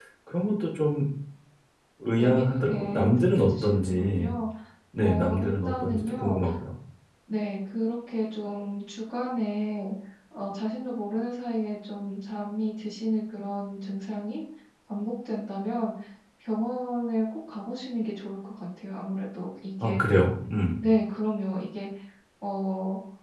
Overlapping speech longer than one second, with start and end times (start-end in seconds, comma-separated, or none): 2.2-4.3, 5.0-6.4